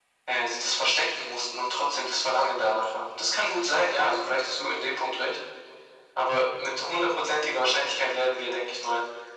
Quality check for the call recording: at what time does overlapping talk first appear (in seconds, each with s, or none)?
none